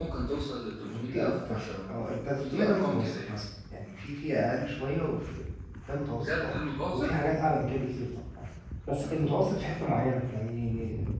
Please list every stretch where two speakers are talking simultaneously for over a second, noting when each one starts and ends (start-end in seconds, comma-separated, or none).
0.8-3.3